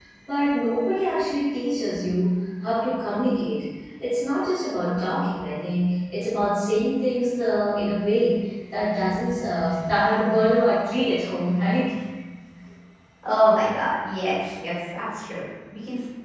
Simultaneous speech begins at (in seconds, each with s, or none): none